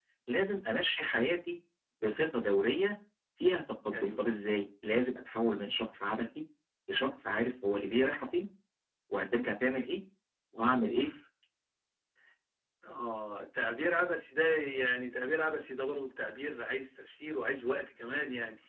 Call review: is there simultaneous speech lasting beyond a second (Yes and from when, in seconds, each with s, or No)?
No